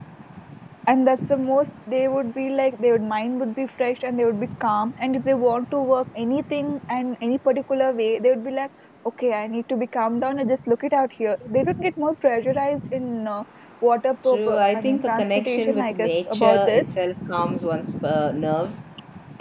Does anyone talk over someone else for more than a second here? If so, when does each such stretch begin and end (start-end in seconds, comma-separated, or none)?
14.2-16.8